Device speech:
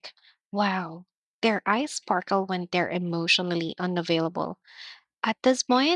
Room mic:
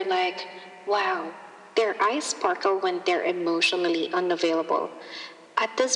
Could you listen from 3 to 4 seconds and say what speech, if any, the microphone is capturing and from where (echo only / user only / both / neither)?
echo only